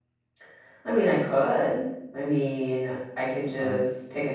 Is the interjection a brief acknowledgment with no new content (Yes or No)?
Yes